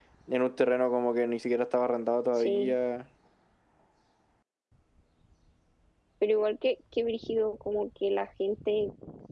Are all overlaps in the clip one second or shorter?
Yes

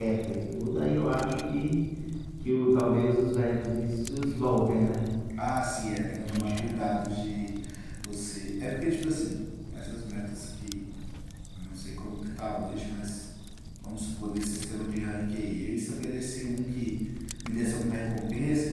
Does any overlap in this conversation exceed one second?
No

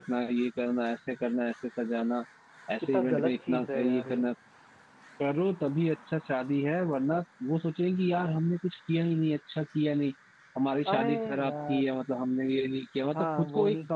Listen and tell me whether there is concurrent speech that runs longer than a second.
Yes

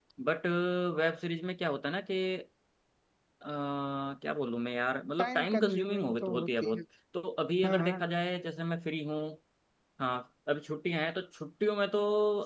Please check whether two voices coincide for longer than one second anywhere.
Yes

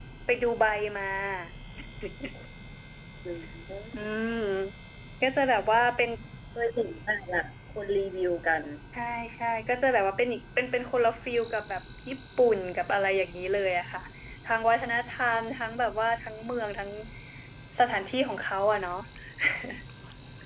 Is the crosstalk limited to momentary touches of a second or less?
Yes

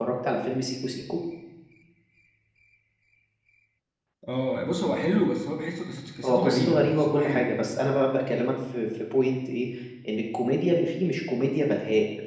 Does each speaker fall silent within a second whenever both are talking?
No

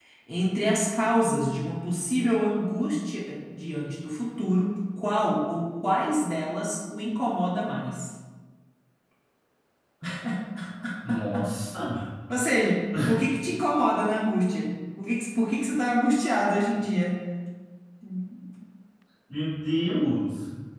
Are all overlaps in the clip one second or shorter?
Yes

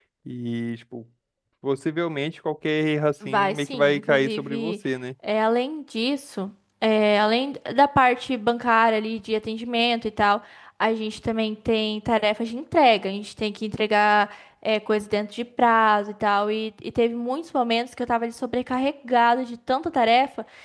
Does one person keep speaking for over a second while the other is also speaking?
Yes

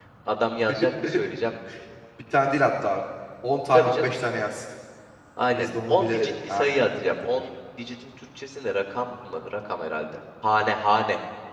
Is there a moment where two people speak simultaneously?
Yes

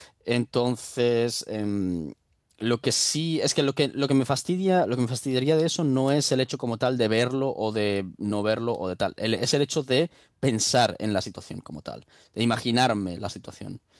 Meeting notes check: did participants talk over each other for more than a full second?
No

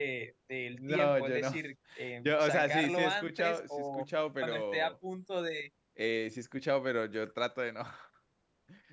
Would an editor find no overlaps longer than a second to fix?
No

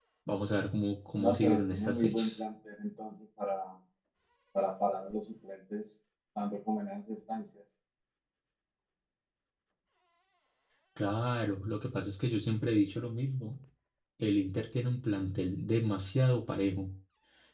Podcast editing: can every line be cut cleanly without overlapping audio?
No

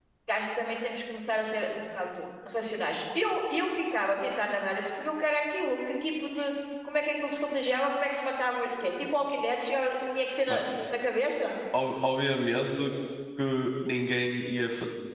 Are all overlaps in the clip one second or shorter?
Yes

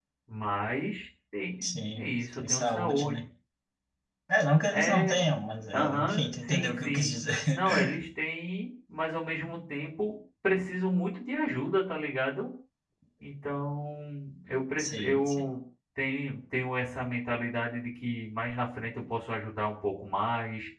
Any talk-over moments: Yes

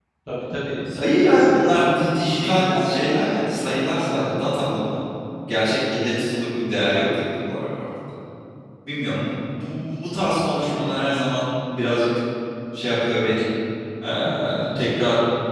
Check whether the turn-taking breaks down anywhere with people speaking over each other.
Yes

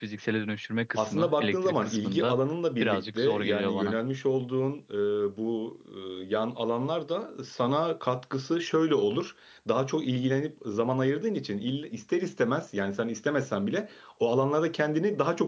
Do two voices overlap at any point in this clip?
Yes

